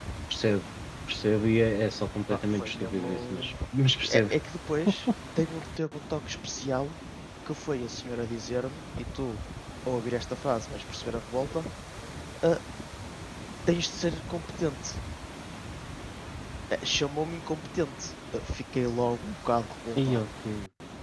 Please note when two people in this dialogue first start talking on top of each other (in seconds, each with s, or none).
2.3 s